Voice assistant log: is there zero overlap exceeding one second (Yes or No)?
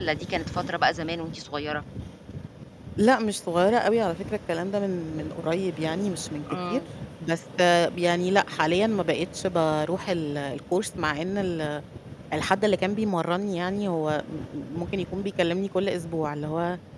Yes